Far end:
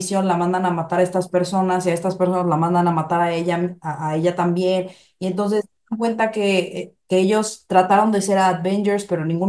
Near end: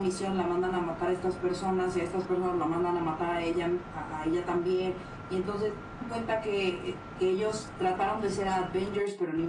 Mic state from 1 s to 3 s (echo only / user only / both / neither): echo only